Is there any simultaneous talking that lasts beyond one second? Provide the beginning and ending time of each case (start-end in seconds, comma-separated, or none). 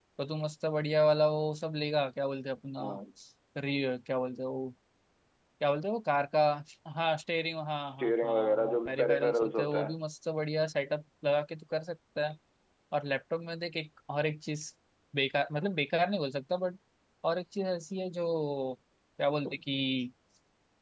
7.9-9.9